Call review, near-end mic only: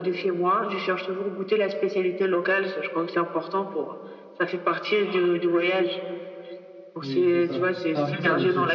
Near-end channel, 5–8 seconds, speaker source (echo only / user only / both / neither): both